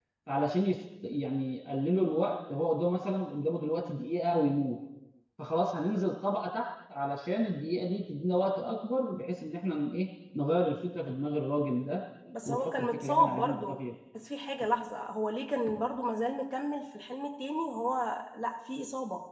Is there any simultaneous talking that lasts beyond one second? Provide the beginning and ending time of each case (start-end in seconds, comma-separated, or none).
12.4-13.8